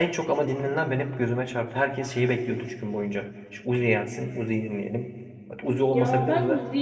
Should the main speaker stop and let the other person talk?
Yes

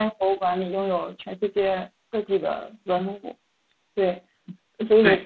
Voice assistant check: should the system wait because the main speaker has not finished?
Yes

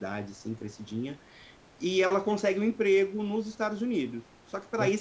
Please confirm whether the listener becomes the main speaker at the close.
No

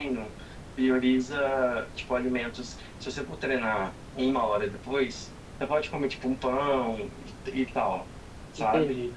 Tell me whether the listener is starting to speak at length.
No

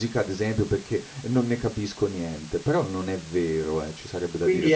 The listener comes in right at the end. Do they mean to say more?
Yes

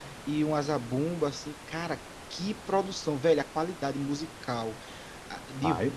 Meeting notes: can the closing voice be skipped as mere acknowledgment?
Yes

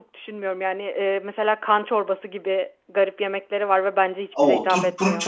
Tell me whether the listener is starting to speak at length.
Yes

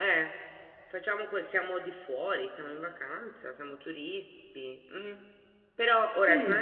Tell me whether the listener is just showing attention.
Yes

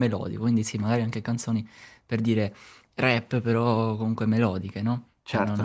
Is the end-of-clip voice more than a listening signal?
Yes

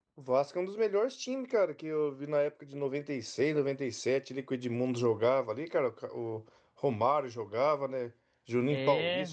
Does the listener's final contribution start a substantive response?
No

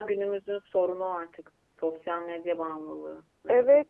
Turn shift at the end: Yes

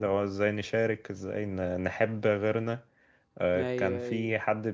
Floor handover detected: No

